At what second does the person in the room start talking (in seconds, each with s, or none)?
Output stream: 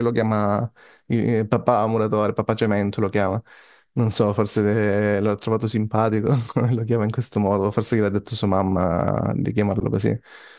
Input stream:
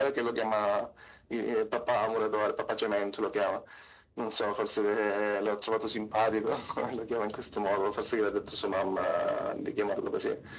none